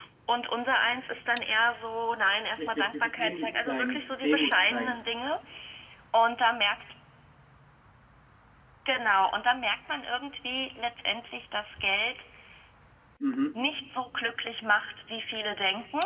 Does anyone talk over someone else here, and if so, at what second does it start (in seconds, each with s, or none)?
2.6 s